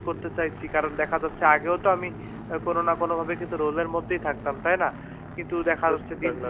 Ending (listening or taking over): listening